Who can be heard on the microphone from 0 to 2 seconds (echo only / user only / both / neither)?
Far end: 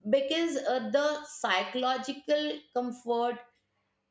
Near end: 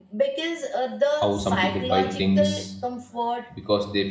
both